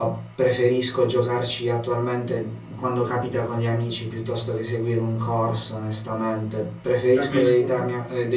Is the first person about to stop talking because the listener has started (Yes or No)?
No